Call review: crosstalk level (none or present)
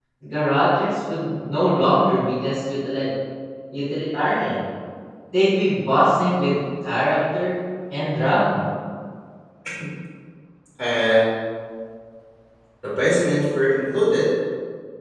none